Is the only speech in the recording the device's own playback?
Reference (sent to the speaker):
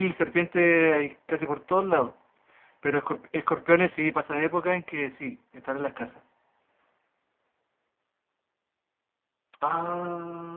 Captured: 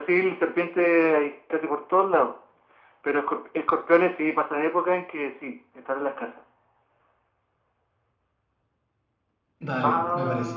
No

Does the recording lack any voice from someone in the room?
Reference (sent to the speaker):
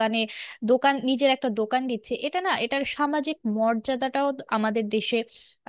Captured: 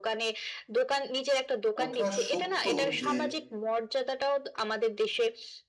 No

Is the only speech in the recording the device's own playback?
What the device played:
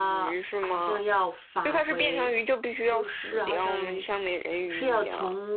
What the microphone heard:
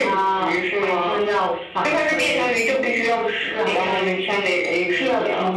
Yes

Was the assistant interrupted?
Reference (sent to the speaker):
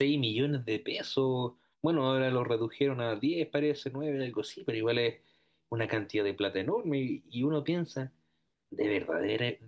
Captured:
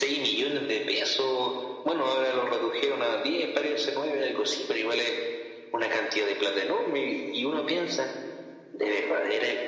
No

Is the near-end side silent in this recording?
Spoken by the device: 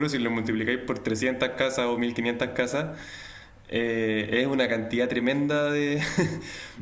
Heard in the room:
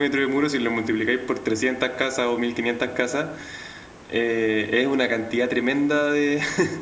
Yes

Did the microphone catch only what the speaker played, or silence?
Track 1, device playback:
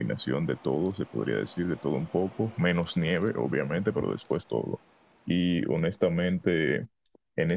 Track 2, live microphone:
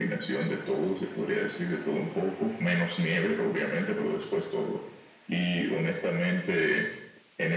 Yes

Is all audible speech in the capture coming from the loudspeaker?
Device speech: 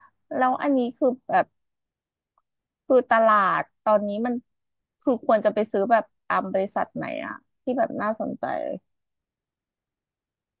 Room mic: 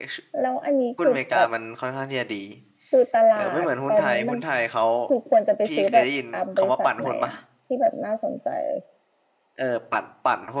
No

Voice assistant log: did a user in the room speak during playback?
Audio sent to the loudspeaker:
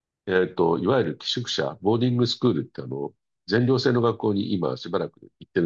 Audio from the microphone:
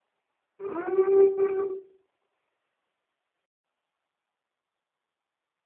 Yes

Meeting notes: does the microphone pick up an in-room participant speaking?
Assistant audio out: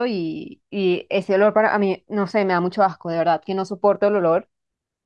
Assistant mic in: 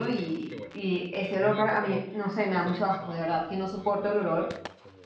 Yes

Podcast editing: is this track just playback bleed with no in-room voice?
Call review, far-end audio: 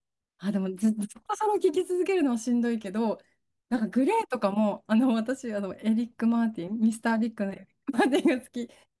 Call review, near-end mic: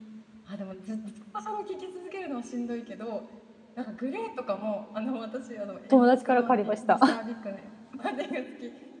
No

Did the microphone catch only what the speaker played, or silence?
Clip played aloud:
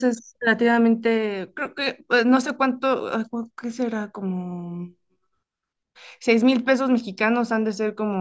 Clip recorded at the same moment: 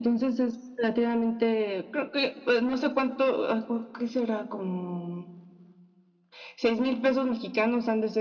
Yes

